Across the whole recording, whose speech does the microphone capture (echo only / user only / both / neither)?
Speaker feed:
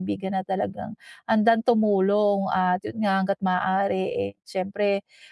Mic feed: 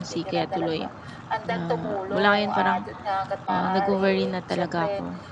both